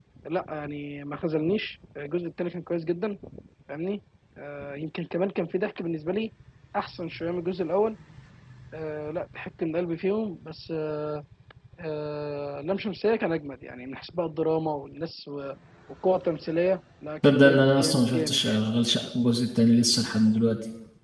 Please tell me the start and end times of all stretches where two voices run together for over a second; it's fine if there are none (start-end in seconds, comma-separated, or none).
17.2-18.6